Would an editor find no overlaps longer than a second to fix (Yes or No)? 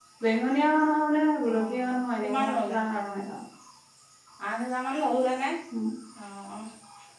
No